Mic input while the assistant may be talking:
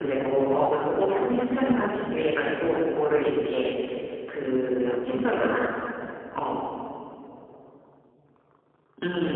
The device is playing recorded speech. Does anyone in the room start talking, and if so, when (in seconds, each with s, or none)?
4.8 s